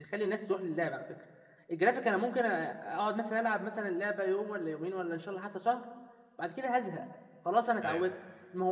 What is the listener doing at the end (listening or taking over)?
listening